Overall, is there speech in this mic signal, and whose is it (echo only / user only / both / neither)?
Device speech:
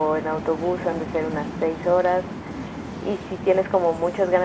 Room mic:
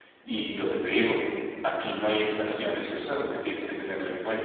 user only